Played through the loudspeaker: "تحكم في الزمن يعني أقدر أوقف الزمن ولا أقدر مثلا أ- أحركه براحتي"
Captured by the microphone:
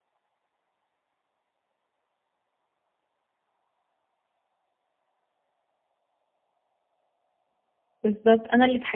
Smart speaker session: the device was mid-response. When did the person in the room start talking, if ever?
8 s

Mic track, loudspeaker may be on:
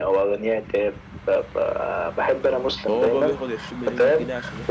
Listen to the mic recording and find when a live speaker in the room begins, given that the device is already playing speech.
3 s

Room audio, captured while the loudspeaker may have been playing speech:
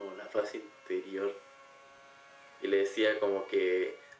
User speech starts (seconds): none

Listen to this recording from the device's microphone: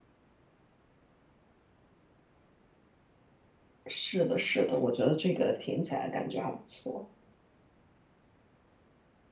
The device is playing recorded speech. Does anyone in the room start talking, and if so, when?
4 s

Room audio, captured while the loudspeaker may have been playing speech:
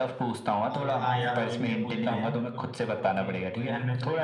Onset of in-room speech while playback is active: 1 s

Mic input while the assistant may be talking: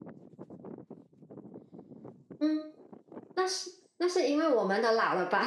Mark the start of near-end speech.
2 s

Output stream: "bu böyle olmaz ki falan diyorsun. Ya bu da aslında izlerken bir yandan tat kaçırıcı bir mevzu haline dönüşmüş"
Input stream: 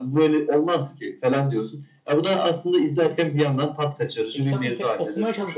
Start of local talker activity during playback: 4 s

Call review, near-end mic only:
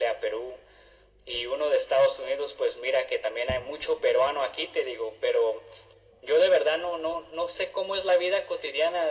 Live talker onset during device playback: none

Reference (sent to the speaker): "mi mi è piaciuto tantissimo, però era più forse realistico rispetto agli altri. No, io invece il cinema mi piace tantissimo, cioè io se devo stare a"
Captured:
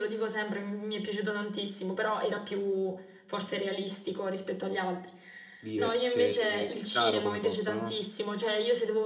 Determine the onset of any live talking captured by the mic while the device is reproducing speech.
6 s

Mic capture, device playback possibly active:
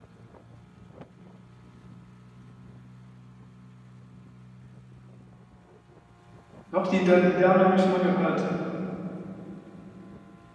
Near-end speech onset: 7 s

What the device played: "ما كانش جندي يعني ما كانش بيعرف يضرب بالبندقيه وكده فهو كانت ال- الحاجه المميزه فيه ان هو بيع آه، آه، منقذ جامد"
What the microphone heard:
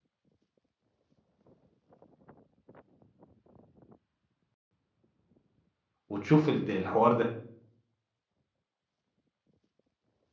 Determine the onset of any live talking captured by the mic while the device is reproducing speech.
6 s

